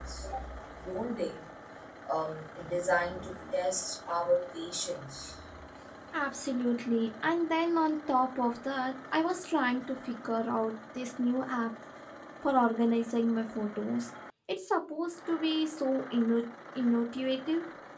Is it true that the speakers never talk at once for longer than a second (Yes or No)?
Yes